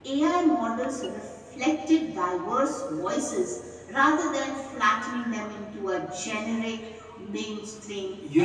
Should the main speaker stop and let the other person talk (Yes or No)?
Yes